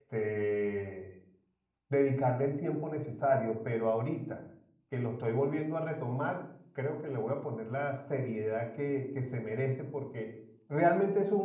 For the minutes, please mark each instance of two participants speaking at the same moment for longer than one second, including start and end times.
none

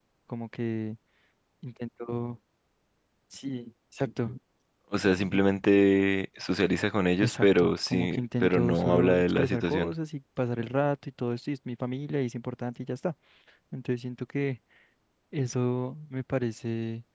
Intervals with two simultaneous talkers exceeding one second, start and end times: 7.2-9.9

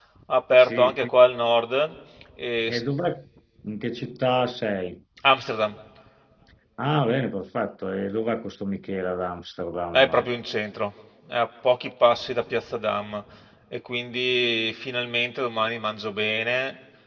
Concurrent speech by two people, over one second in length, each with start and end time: none

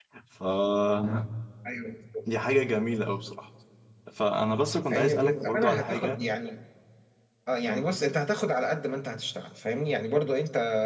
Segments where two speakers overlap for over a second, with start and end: 4.9-6.2

